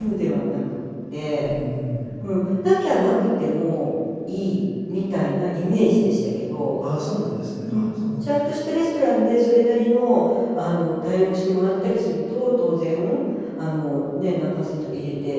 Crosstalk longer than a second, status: none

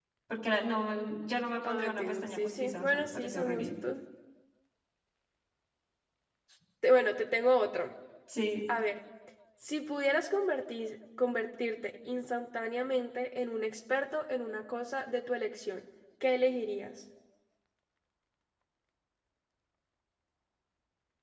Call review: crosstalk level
present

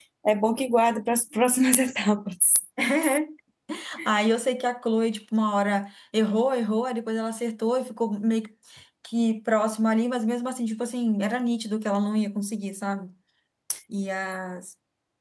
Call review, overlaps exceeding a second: none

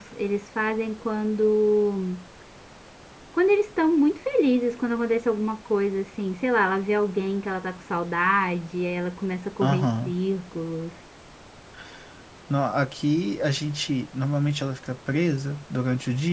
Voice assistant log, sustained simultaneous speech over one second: none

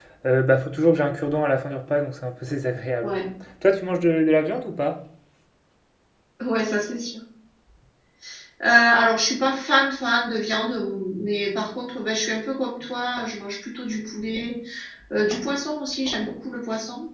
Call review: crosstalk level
none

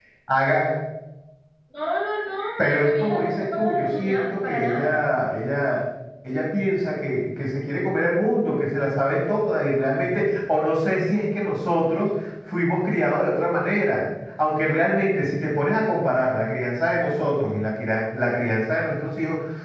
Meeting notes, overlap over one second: present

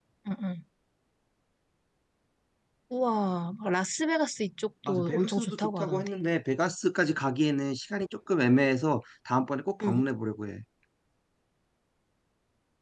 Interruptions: present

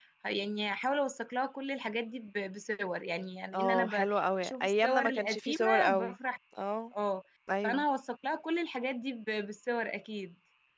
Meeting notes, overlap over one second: present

